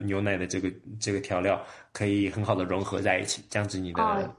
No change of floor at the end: No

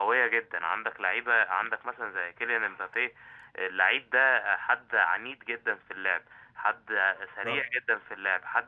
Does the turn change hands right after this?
No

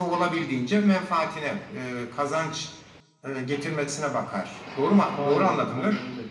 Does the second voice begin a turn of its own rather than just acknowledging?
Yes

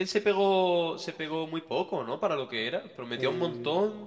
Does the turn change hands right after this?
No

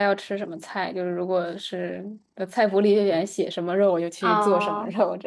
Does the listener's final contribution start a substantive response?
Yes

